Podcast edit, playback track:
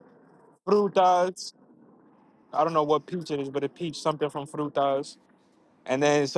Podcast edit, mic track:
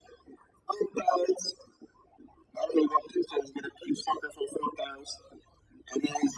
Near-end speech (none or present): none